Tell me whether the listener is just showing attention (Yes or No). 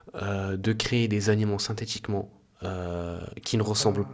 Yes